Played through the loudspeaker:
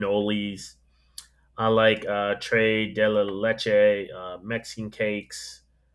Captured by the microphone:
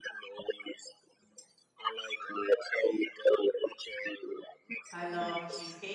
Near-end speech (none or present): present